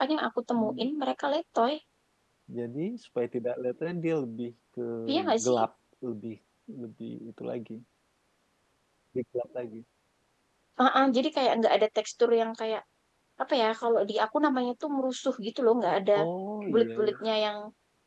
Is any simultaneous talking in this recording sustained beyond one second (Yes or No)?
No